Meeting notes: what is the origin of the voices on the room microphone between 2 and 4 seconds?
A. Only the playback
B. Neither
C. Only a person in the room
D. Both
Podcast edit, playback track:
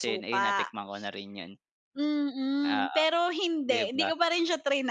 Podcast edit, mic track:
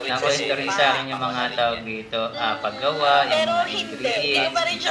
D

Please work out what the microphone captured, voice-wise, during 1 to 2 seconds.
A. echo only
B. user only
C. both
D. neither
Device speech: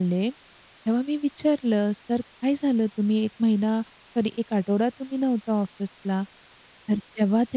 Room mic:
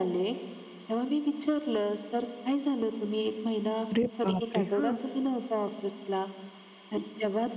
A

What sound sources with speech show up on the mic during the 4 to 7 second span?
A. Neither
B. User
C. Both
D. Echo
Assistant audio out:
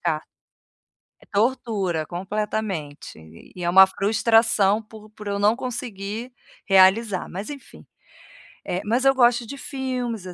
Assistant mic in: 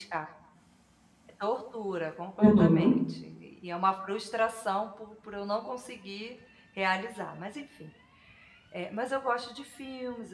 D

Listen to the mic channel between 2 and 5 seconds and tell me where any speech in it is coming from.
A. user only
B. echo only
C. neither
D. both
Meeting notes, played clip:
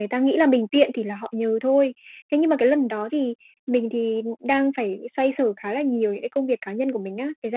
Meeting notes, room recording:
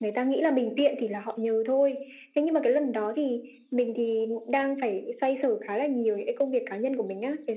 B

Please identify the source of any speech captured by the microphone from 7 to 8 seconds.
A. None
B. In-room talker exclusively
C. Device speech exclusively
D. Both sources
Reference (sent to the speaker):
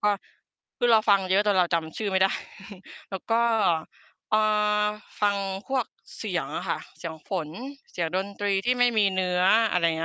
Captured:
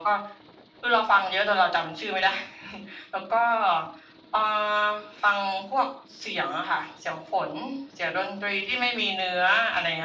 C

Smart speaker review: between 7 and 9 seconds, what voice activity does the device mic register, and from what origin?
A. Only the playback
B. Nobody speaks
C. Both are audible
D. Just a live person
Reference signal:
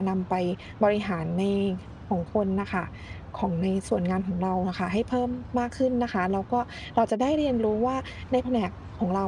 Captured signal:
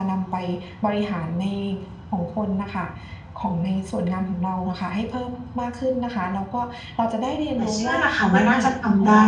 C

